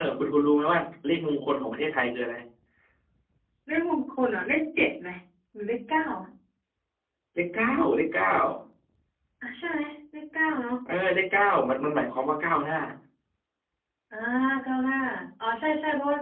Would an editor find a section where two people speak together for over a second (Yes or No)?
No